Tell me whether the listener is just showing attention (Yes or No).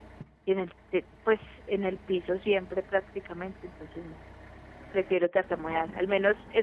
Yes